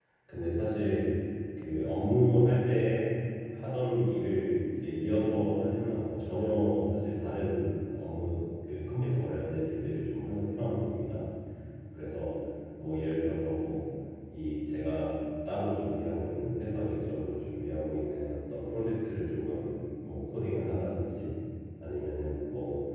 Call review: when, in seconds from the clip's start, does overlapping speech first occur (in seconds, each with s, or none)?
none